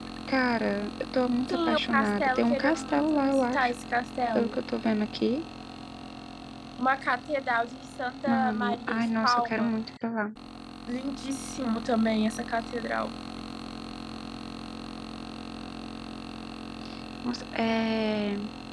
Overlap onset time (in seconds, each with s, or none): 1.5 s